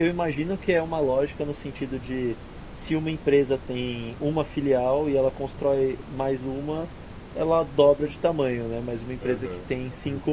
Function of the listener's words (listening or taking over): listening